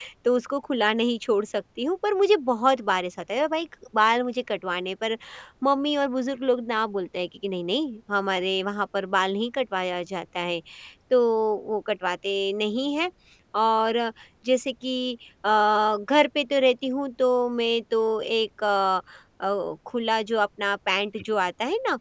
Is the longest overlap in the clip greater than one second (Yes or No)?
No